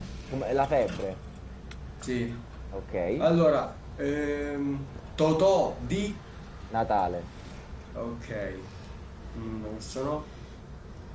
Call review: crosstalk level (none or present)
none